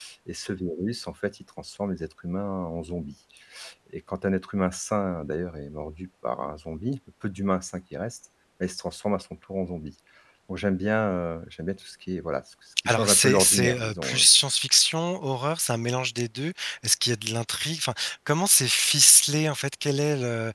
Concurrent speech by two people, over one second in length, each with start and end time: 12.9-14.3

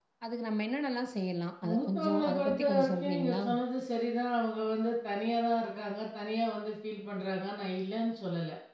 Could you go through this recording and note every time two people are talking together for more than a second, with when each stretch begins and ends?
1.7-3.4

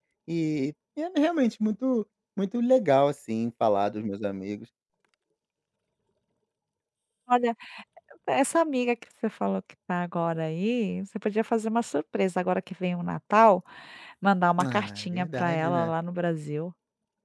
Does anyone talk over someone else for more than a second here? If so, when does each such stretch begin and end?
14.6-15.9

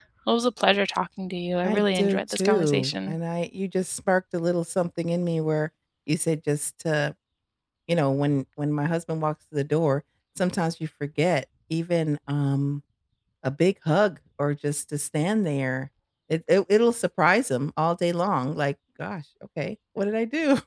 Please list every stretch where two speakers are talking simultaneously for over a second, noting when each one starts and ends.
1.6-3.2

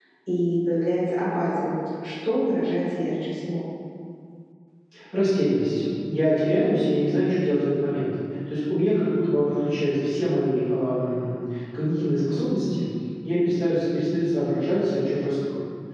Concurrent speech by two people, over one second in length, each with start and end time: none

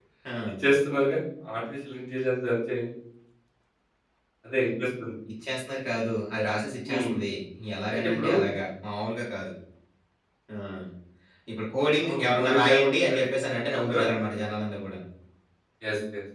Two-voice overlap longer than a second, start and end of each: 12.0-14.5

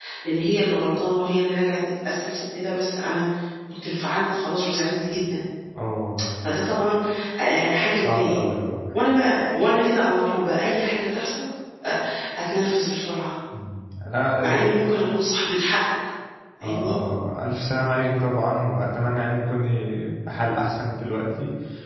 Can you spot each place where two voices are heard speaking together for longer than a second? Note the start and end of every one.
none

